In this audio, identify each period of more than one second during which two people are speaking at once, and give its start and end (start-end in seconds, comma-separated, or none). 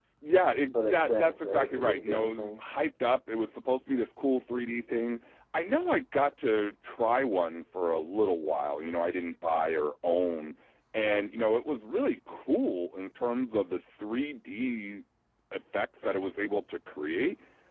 0.8-2.6